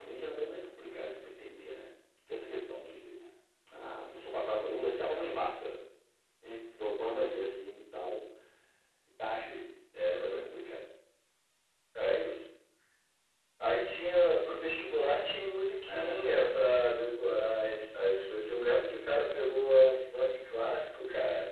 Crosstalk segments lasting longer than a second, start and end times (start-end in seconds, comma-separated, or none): none